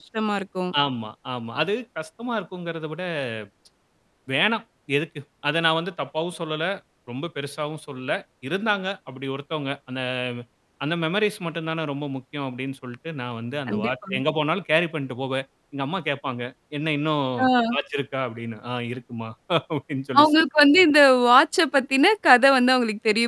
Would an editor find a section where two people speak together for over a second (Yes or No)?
No